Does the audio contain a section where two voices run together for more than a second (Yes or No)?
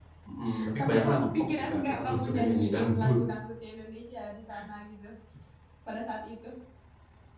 Yes